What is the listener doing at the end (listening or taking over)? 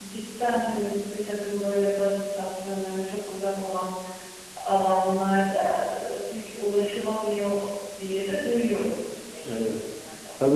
taking over